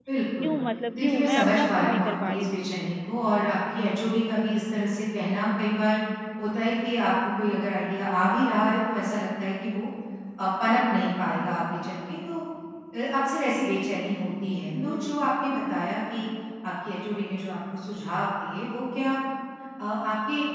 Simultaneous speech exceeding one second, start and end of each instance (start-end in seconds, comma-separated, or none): 1.0-2.6